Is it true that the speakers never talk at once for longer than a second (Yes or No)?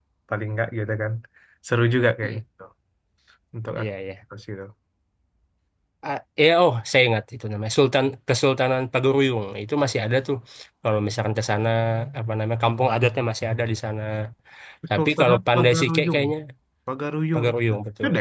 No